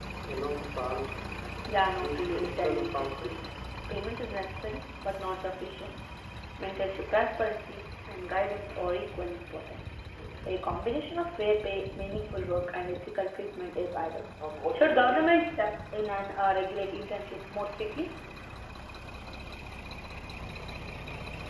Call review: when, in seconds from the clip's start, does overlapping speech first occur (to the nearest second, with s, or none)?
2 s